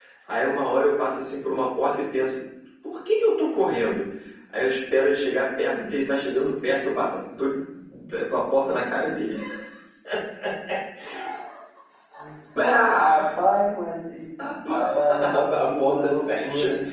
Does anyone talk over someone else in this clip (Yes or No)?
Yes